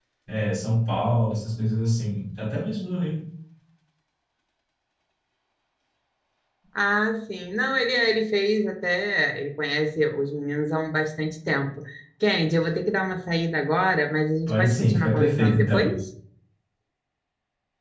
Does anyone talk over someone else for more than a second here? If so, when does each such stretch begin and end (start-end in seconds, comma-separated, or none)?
14.5-15.9